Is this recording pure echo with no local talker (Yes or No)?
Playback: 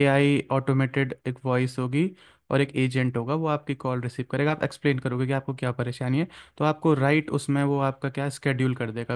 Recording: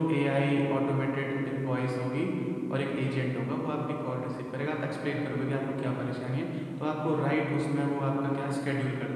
Yes